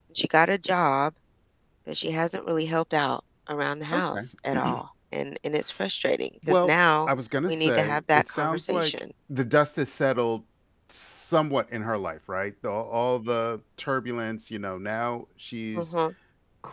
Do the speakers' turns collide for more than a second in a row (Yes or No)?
Yes